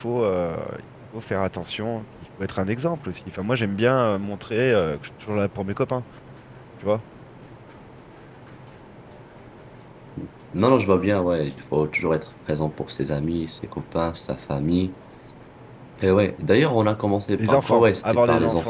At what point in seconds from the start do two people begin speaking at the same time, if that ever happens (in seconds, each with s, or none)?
17.4 s